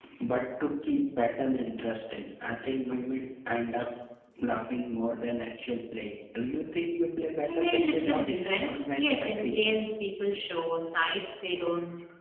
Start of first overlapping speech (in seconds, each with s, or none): 7.5 s